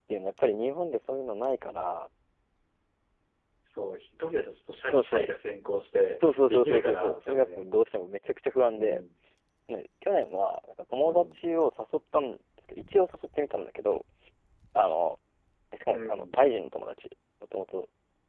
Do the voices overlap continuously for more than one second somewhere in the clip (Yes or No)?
Yes